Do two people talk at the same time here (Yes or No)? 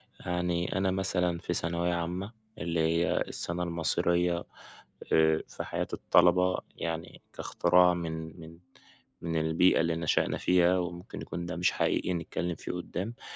No